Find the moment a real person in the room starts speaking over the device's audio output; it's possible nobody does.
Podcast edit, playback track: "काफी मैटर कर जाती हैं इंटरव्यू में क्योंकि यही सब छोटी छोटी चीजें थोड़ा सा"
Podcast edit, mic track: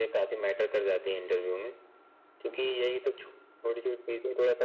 none

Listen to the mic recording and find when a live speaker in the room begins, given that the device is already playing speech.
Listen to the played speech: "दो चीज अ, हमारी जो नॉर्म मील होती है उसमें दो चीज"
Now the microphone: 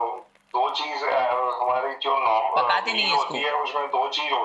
3 s

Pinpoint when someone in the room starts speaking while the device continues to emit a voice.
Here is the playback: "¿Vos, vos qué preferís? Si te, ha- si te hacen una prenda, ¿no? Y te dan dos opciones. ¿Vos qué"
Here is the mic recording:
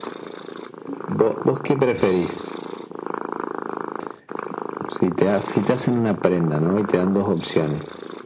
none

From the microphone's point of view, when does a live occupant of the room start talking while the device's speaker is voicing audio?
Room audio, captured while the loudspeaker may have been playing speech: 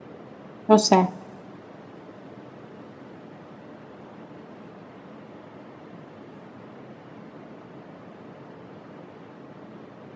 1 s

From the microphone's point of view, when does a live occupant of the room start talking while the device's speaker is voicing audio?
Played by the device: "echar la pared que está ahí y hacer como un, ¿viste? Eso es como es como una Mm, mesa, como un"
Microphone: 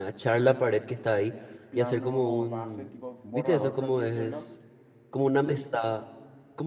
2 s

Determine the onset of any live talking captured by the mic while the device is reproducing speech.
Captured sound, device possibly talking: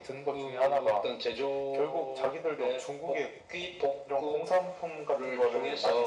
none

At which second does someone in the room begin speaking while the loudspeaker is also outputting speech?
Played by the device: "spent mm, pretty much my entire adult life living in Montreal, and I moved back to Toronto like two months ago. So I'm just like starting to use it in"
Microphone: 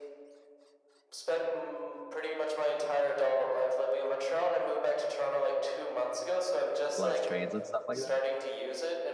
7 s

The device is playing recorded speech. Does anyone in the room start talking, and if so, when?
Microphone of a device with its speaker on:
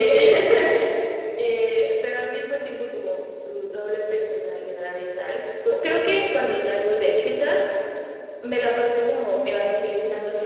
none

